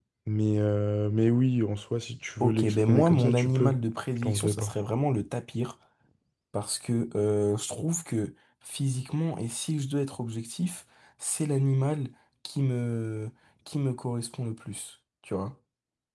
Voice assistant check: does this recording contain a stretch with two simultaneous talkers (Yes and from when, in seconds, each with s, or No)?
Yes, from 2.4 s